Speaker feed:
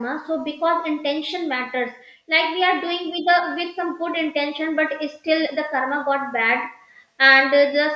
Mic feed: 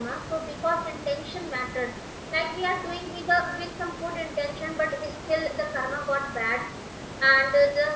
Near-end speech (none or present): none